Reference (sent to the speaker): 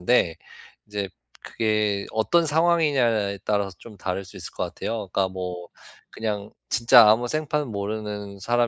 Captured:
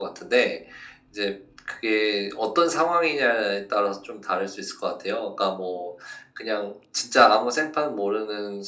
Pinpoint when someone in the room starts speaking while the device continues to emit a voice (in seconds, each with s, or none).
none